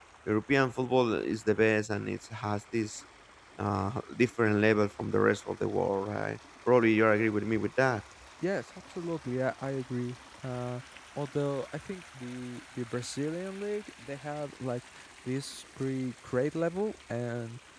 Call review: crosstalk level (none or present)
none